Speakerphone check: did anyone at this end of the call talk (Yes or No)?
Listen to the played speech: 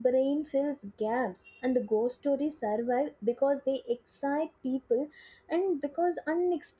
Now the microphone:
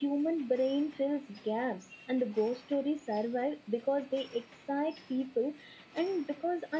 No